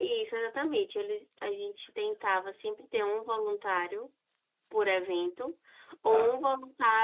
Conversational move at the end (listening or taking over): listening